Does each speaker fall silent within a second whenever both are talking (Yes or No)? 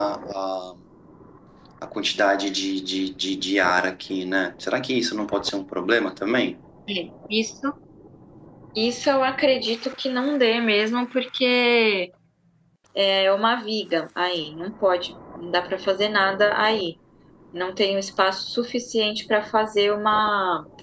Yes